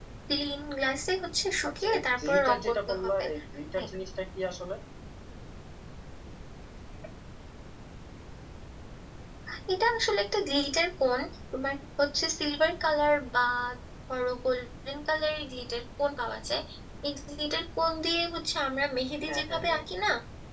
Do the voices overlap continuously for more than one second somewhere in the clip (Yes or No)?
Yes